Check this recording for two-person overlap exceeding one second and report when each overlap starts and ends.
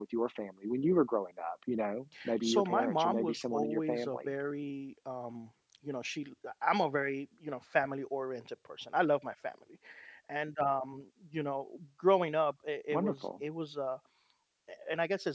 2.4-4.3

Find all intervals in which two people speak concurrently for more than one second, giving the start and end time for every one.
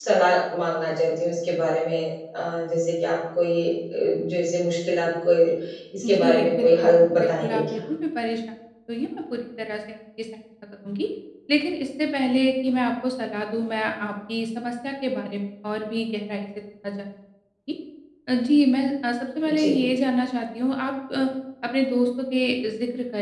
6.0-7.8

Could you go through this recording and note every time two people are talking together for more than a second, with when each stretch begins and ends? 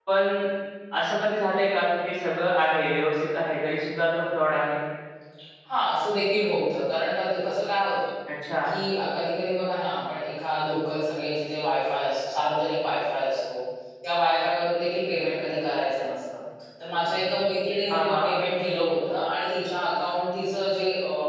none

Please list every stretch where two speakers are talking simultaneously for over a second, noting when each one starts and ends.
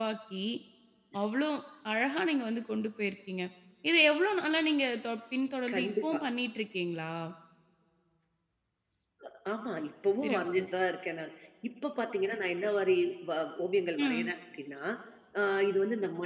none

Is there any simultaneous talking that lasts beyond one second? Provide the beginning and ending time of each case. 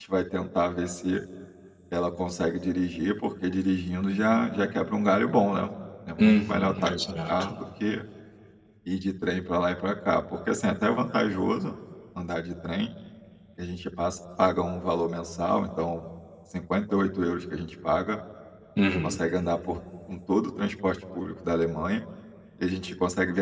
6.2-7.5

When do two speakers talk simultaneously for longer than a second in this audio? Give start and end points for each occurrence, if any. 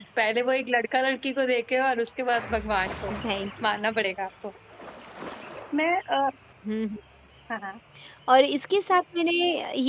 none

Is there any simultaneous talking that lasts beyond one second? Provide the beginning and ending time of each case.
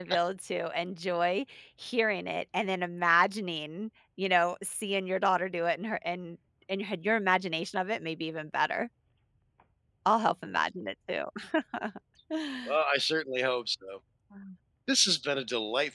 none

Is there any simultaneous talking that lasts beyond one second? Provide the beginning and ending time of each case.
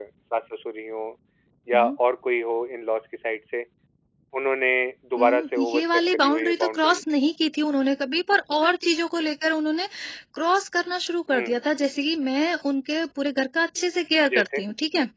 5.2-7.0

